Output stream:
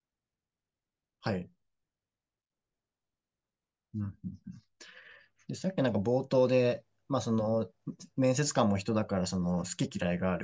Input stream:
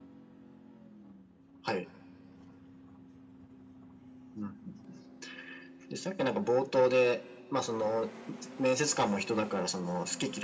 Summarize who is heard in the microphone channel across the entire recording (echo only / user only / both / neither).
echo only